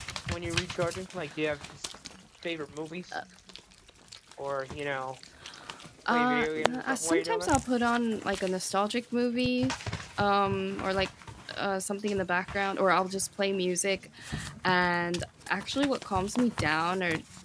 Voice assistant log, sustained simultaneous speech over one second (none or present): present